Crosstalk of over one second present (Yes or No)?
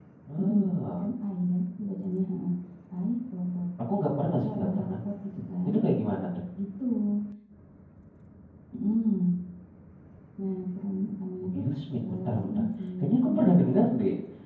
Yes